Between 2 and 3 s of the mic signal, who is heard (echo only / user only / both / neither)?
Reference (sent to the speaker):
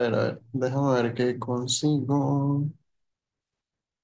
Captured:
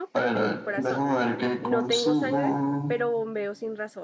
both